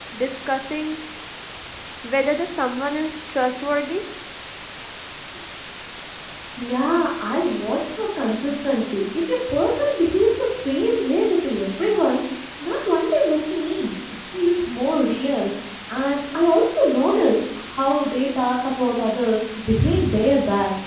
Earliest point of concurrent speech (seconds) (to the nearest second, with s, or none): none